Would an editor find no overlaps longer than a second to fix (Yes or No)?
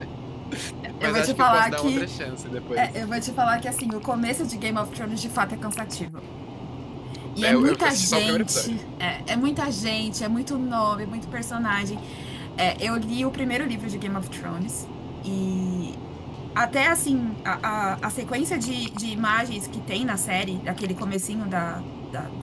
No